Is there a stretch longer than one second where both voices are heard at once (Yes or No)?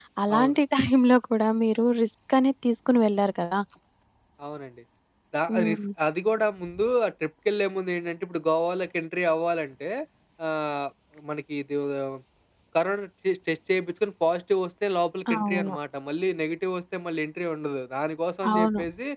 No